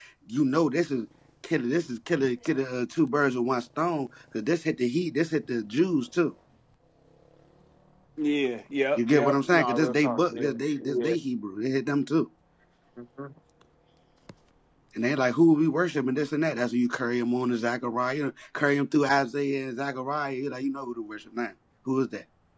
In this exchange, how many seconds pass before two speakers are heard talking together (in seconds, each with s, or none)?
8.9 s